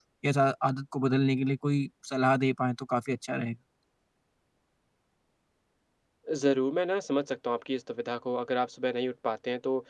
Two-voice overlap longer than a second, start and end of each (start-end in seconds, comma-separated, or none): none